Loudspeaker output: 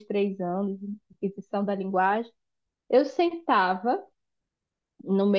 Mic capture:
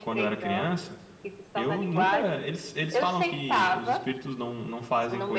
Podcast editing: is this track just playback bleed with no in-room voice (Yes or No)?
No